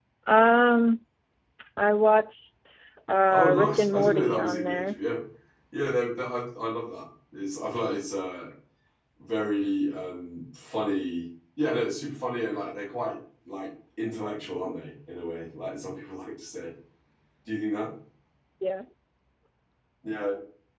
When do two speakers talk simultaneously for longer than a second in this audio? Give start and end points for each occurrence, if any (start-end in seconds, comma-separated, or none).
3.3-5.0